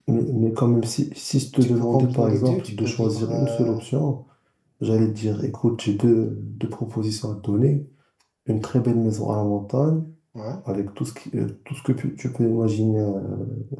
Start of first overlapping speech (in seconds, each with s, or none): 1.6 s